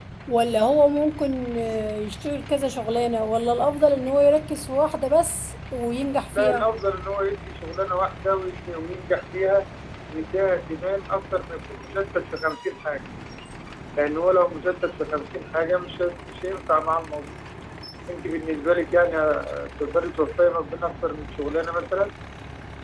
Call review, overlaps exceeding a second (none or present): none